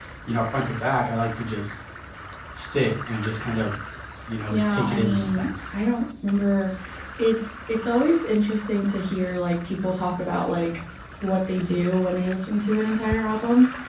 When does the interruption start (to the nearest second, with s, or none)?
5 s